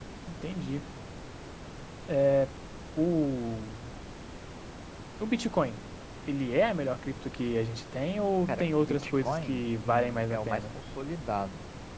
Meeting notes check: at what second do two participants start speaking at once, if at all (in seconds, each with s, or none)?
8.5 s